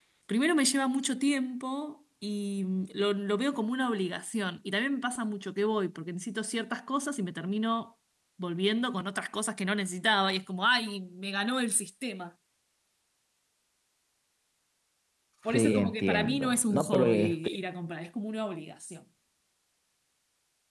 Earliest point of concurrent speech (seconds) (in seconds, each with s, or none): 15.5 s